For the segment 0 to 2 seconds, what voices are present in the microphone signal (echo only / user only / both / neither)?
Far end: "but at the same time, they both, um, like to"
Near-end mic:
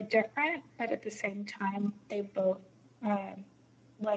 echo only